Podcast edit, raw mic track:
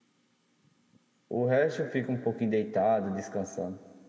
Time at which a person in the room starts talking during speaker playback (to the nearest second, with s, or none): 1 s